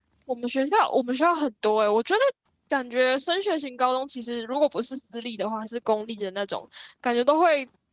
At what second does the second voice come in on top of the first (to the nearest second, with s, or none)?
none